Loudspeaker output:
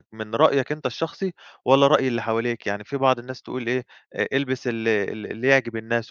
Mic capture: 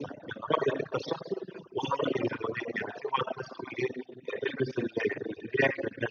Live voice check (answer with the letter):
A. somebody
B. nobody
B